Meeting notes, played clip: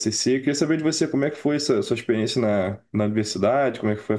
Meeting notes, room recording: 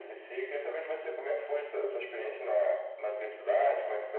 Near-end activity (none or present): none